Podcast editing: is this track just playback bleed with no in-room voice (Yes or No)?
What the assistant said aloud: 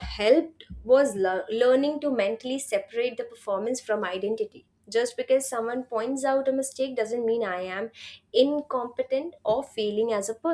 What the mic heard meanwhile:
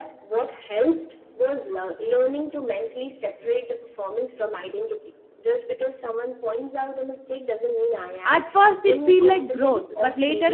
No